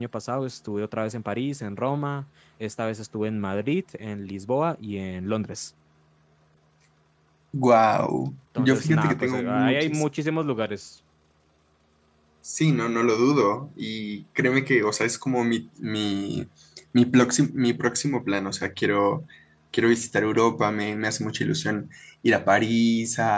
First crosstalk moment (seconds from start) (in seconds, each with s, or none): 8.6 s